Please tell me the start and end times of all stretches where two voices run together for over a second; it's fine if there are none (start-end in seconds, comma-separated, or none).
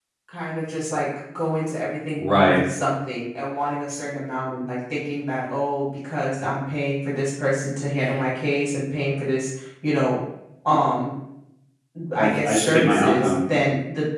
12.2-13.4